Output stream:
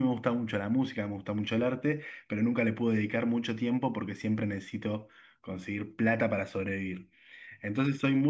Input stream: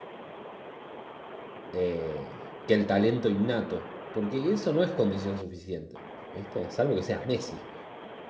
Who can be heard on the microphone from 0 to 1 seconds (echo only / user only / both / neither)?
neither